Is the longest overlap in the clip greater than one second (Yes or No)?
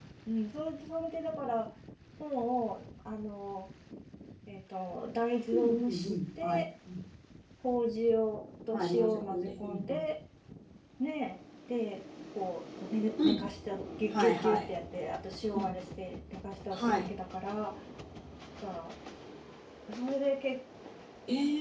Yes